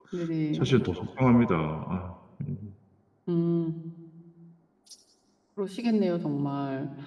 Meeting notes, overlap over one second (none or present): none